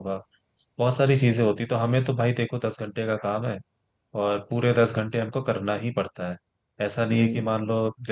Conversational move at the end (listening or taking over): listening